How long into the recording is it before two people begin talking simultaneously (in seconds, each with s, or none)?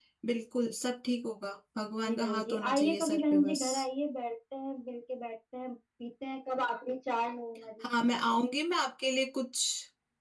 2.0 s